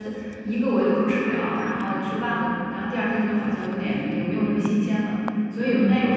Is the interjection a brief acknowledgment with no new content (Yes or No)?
Yes